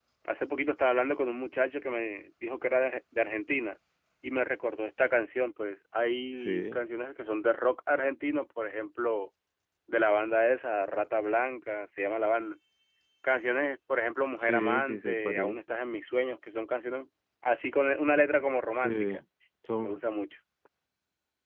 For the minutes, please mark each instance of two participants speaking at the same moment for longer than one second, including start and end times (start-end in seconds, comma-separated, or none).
14.3-15.6